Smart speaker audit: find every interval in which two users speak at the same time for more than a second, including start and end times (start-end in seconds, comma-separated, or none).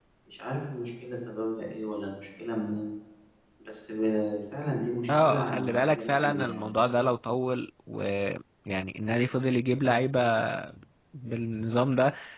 5.2-6.6